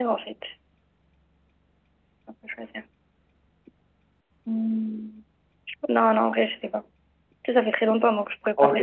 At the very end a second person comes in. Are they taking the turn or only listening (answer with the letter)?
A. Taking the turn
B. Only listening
A